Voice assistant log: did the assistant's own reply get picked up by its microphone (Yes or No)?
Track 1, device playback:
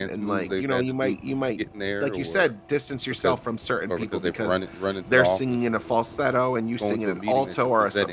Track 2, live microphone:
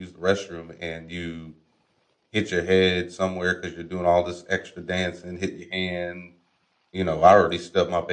No